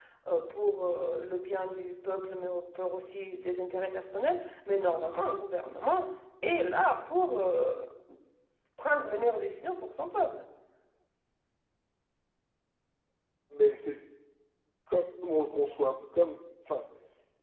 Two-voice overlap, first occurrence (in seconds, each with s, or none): none